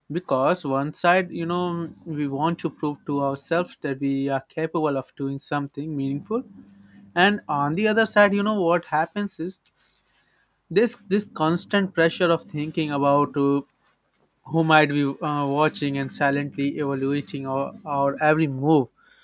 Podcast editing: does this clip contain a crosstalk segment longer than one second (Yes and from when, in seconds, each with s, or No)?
No